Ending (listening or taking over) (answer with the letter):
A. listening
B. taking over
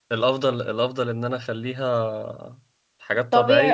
B